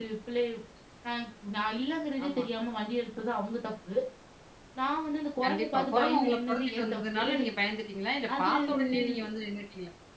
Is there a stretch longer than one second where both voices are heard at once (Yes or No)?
Yes